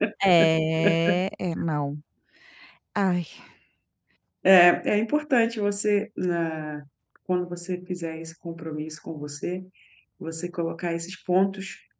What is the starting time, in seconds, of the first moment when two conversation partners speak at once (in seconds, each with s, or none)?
none